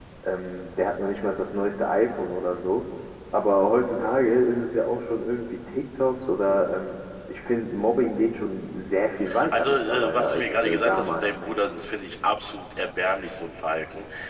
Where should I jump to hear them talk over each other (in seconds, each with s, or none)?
9.3 s